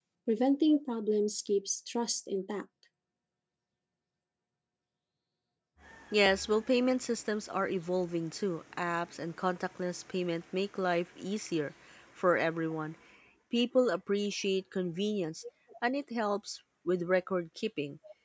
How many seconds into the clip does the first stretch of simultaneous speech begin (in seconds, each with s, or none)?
none